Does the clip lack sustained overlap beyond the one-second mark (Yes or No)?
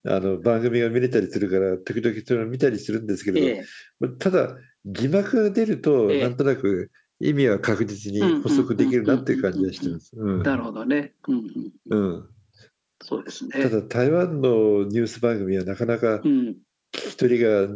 No